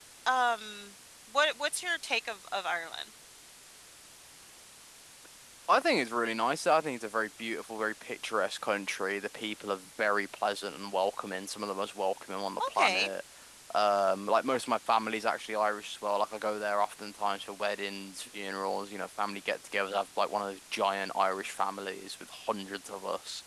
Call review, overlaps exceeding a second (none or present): none